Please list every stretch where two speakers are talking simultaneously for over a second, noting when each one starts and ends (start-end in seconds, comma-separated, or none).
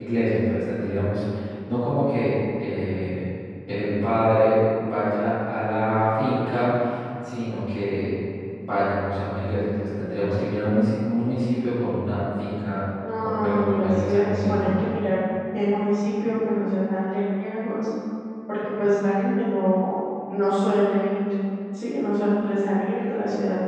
13.2-14.7